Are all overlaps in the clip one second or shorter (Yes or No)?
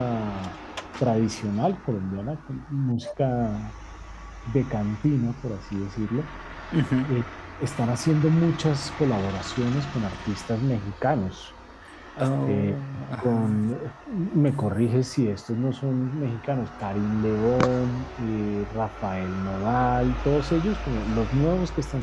Yes